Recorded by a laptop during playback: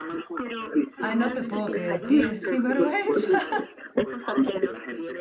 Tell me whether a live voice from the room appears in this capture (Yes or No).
Yes